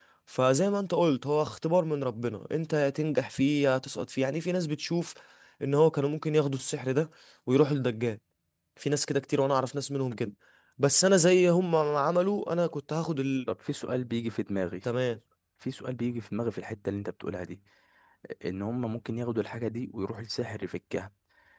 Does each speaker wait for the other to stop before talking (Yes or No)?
Yes